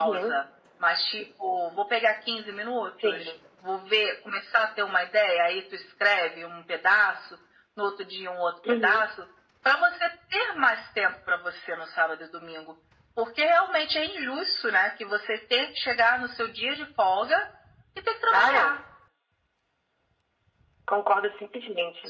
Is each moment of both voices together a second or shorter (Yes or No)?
Yes